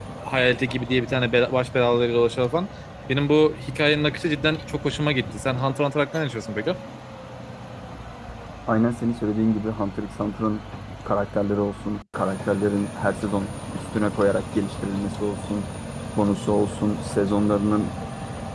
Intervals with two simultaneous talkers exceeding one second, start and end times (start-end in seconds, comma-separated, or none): none